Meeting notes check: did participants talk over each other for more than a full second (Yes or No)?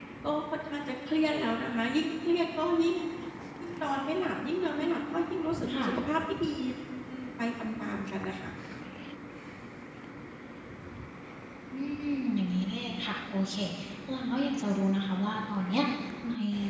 No